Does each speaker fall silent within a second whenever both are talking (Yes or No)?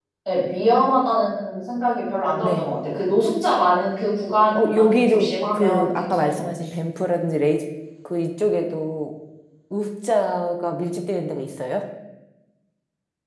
No